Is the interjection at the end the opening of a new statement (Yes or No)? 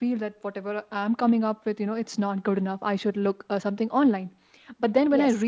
No